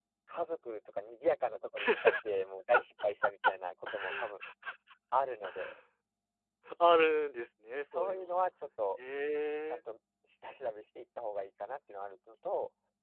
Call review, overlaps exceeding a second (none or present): none